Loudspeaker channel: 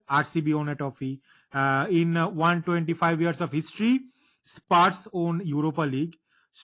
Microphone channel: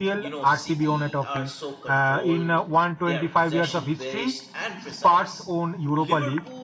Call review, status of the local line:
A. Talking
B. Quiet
A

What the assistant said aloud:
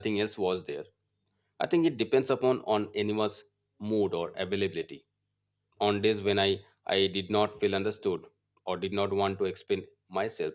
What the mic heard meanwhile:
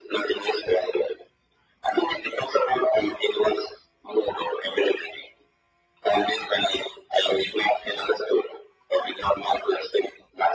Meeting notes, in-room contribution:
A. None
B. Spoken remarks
A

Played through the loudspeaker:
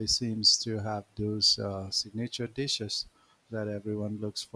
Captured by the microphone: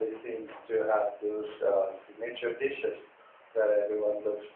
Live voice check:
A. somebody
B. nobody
B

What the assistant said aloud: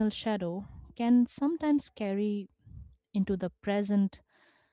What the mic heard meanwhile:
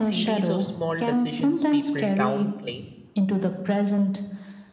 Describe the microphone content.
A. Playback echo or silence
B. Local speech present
B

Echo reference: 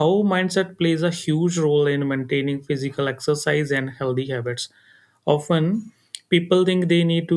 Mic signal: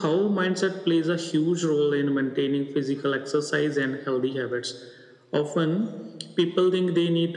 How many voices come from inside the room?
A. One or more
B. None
B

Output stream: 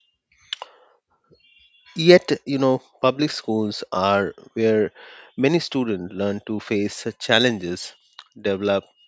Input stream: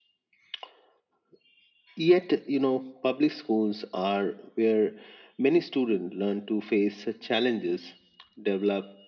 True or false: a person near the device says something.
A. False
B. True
A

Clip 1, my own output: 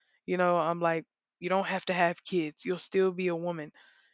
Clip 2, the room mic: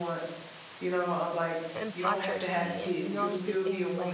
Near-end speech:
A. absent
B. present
B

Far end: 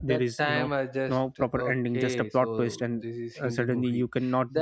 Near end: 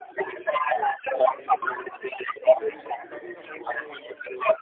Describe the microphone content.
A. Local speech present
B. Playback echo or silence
A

